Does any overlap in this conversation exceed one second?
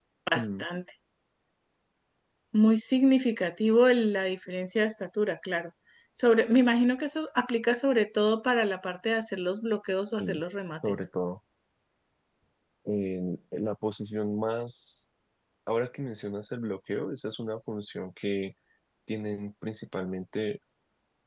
No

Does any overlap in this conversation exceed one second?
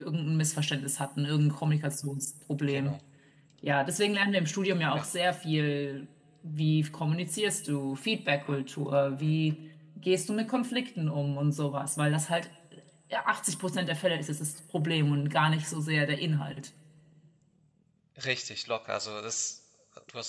No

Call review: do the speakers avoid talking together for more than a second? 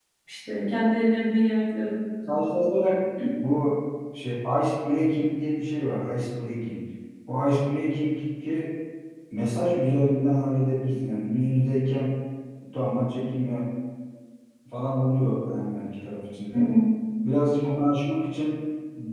Yes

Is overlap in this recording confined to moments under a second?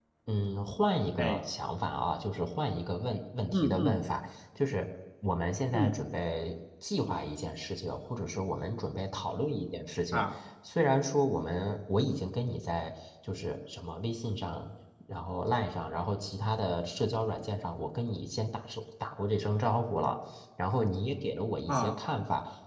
Yes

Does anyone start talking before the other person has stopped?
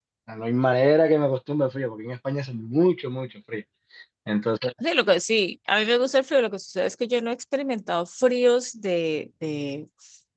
No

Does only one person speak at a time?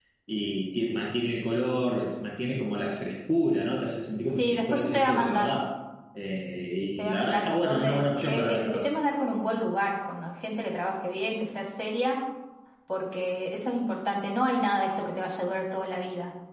No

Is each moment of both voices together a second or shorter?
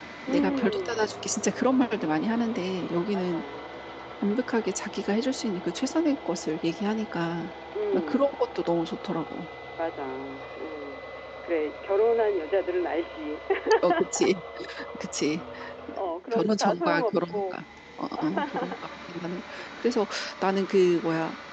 No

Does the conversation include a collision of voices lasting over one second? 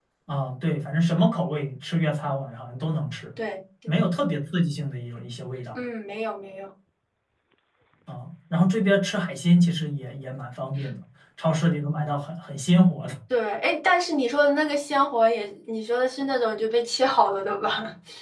No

